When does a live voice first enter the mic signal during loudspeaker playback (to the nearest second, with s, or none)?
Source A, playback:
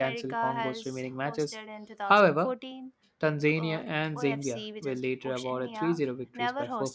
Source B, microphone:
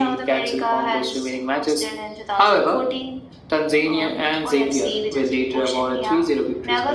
none